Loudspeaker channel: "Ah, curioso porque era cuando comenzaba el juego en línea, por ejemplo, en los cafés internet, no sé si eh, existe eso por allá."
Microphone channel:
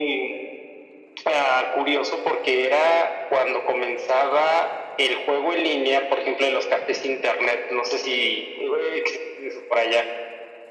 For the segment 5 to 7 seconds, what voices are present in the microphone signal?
echo only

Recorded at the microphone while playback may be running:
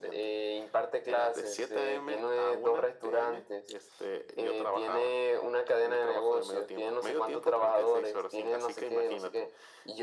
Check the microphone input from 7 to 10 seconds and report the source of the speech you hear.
echo only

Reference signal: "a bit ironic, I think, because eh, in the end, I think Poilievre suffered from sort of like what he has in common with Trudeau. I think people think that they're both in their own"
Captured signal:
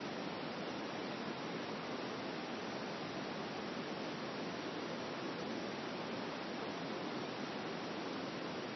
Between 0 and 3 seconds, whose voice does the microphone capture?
neither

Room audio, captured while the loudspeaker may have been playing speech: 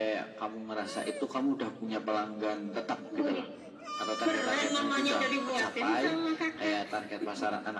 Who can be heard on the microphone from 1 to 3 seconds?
echo only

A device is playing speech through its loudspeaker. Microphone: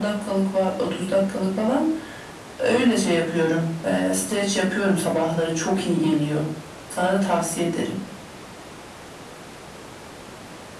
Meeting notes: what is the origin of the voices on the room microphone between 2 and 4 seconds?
echo only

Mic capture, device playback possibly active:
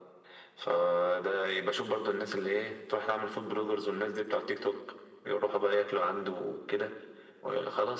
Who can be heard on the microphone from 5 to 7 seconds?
echo only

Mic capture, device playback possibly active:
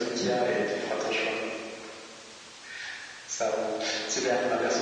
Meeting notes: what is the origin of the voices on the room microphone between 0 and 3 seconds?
echo only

